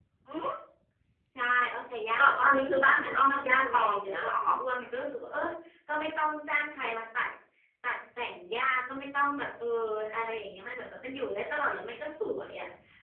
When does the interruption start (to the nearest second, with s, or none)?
2 s